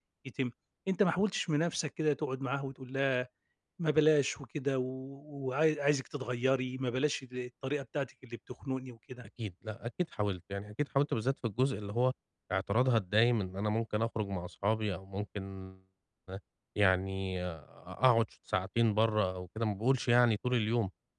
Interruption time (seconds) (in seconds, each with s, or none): none